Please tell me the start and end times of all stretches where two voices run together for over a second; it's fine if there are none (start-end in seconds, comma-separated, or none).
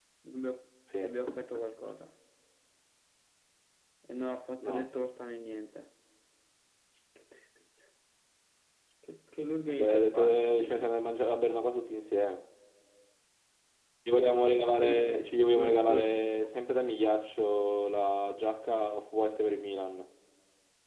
9.7-11.0, 14.7-16.7